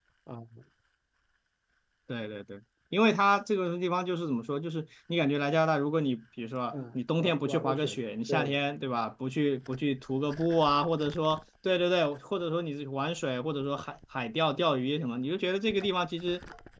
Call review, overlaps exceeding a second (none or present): present